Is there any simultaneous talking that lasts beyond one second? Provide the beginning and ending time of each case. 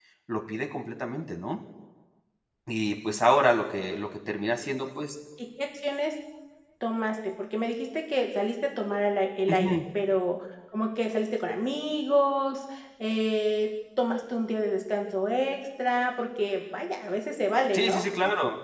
none

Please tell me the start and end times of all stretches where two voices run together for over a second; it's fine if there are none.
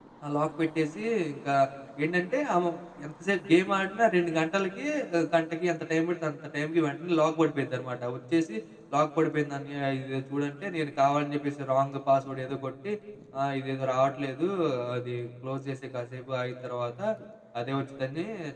none

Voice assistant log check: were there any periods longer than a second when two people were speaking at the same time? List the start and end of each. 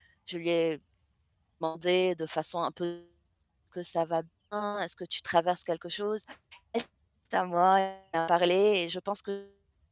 none

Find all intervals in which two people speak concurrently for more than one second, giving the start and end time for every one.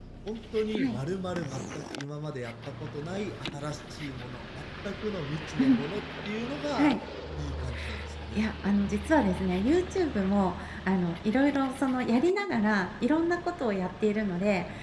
none

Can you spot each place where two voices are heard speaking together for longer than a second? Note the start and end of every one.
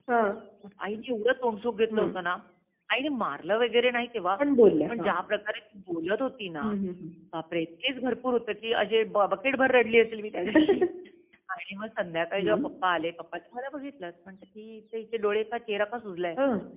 none

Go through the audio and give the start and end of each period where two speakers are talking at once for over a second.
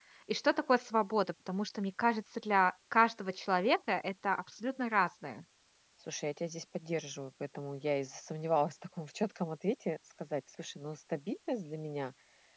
none

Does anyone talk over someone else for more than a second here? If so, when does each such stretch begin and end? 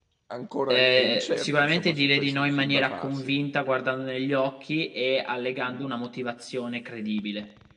0.7-3.4

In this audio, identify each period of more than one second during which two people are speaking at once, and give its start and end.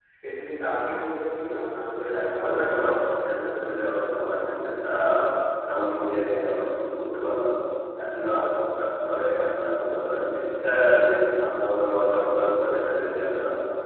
2.2-3.7

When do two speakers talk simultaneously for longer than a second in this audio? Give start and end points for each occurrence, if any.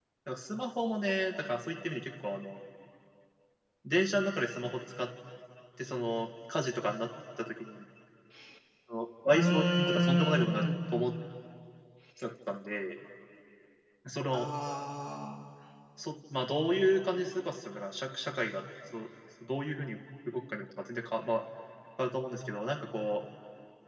9.3-10.6

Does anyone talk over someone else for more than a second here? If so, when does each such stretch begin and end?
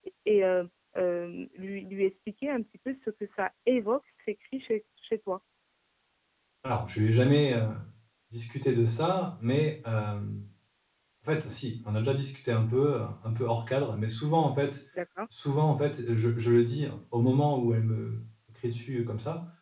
none

